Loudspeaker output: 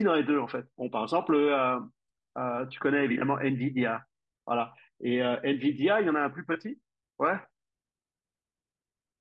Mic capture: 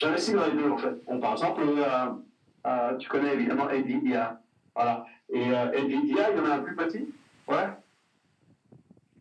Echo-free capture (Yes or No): No